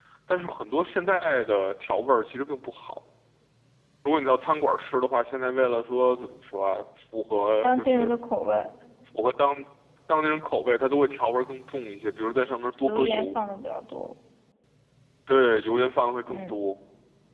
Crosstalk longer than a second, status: none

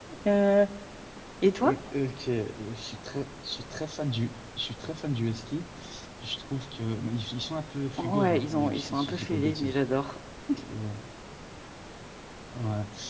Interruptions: present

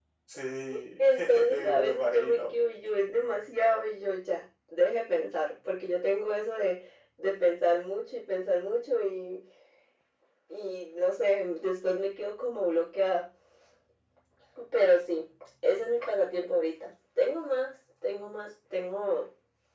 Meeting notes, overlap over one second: present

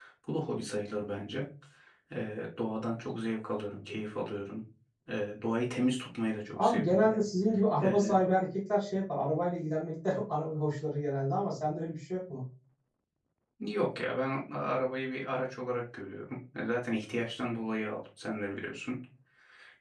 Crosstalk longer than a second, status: none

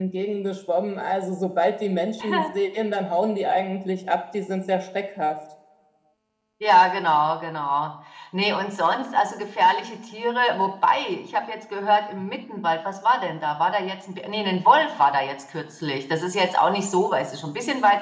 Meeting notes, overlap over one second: none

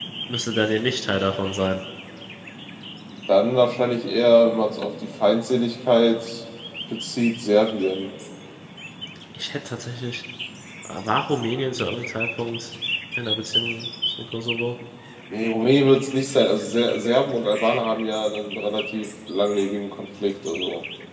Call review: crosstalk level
none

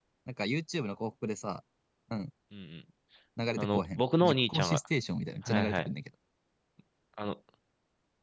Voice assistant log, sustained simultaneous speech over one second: present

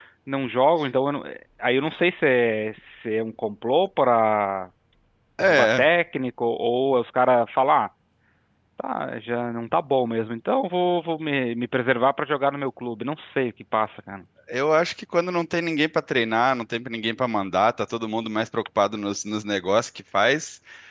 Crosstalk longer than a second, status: none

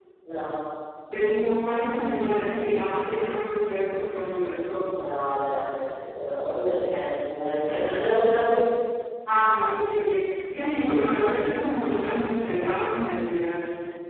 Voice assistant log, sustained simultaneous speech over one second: none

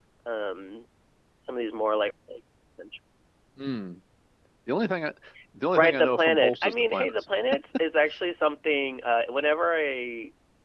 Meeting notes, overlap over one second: present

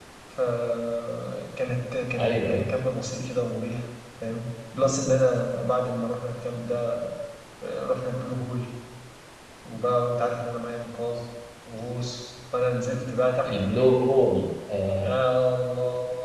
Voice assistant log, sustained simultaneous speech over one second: none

